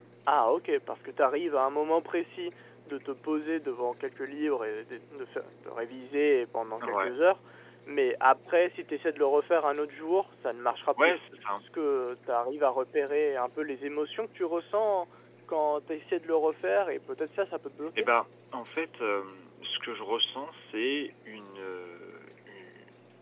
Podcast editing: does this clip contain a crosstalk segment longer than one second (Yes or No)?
No